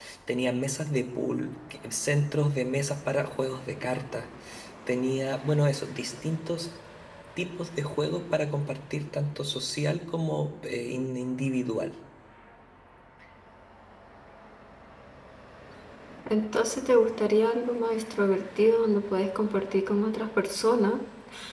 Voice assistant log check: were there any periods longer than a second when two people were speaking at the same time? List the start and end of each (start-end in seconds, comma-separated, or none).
none